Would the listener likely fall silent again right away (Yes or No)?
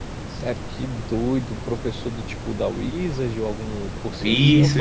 No